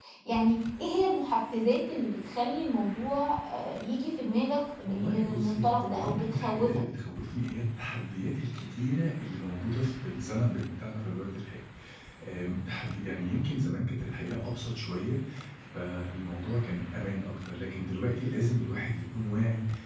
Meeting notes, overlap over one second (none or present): present